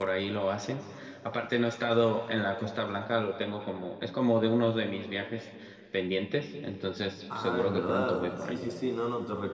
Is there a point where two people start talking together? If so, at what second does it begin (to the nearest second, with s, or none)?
7 s